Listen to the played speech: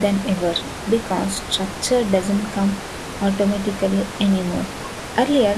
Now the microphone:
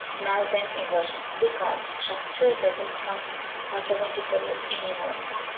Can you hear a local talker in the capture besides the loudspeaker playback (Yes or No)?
No